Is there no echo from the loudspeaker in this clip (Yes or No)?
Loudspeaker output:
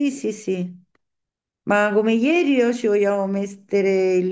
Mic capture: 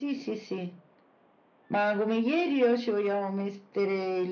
No